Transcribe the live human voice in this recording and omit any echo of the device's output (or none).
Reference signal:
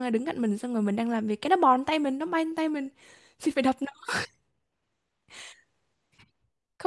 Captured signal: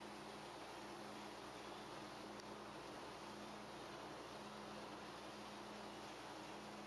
none